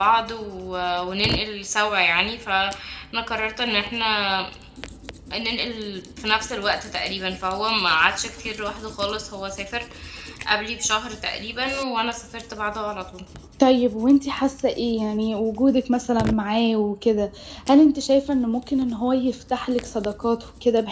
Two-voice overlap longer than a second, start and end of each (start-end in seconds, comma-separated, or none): none